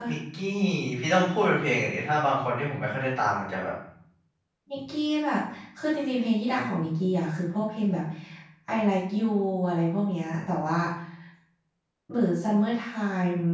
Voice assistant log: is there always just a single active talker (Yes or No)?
Yes